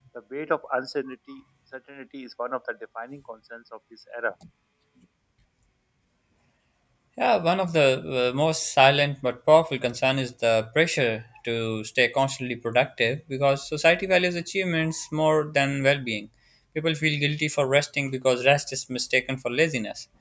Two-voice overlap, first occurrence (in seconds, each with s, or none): none